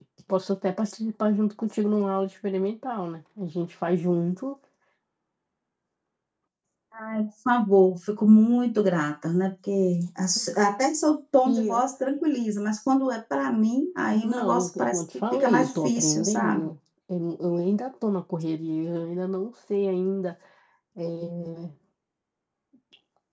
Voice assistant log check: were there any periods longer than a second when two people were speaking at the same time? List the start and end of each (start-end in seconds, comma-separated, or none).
14.1-16.7